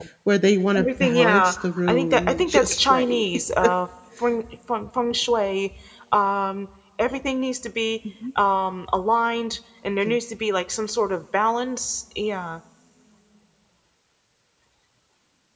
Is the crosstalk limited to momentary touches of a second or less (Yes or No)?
No